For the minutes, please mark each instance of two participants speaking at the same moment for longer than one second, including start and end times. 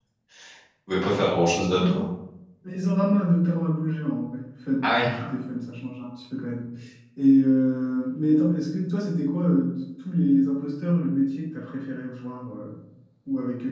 none

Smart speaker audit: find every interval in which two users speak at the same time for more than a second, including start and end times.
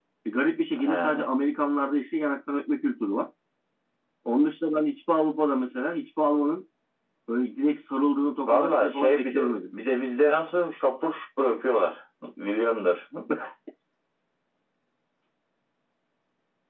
8.5-9.7

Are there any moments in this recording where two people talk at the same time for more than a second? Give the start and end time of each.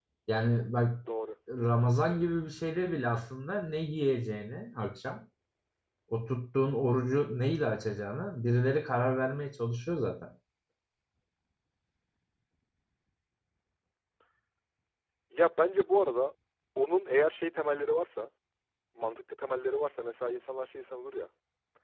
none

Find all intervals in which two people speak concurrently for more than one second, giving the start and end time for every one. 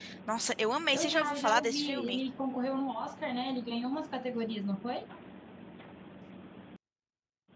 0.9-2.2

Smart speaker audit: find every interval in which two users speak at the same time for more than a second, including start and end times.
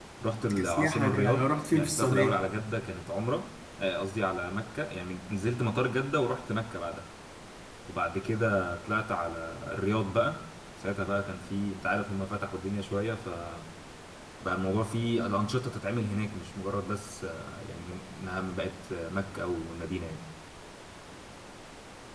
0.6-2.4

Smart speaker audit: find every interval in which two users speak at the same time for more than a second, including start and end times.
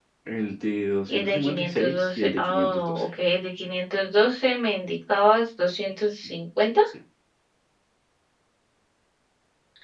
1.1-3.0

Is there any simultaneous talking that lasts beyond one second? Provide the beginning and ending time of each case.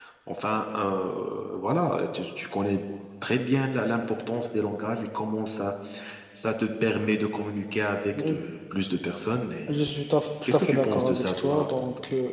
10.4-11.7

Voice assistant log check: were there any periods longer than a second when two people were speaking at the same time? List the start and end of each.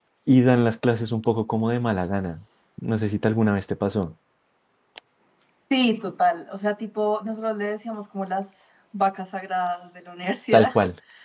none

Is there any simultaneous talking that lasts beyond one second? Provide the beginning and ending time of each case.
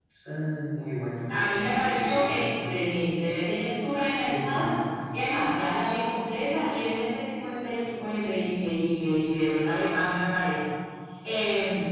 1.3-2.7

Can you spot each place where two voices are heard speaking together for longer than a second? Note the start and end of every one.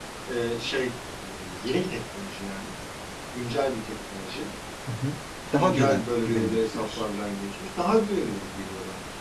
5.6-7.0

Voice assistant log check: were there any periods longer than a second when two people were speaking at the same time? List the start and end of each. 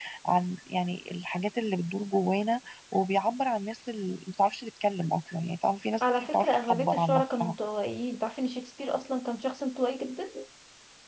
6.0-7.6

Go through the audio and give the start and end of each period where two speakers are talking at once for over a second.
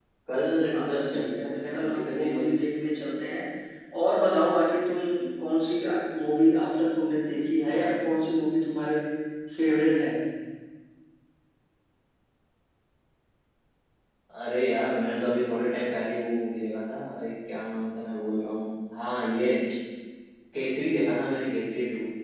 0.7-2.5

